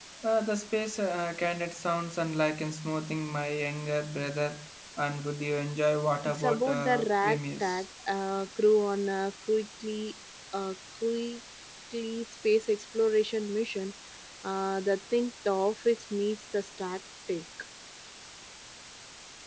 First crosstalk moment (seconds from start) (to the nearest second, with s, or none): 6 s